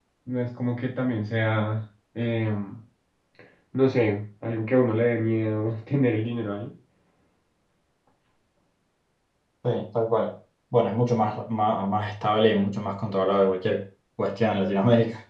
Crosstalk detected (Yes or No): No